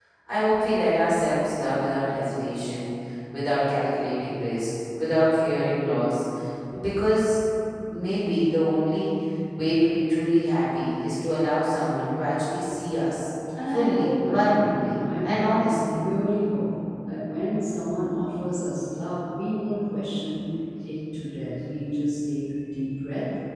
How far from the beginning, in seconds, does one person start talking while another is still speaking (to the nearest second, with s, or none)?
14 s